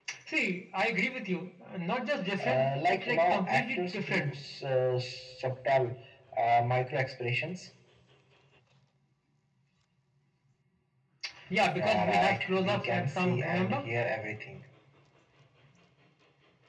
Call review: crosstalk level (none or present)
present